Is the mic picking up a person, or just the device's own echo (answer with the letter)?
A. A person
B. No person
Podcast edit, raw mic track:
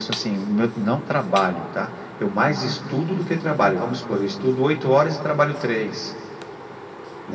B